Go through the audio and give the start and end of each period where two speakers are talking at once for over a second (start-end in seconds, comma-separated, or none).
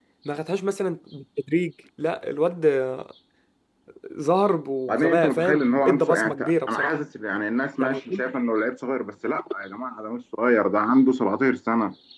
4.9-7.0